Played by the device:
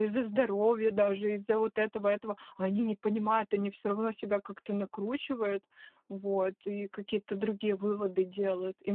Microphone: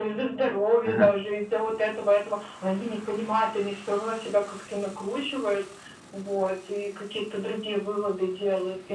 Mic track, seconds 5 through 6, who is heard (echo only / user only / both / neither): echo only